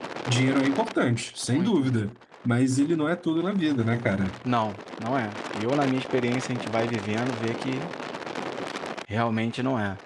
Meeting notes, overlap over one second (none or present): none